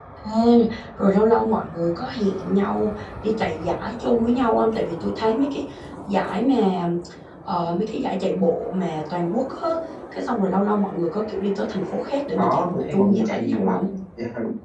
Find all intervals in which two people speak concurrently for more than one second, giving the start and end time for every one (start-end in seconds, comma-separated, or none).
12.4-13.8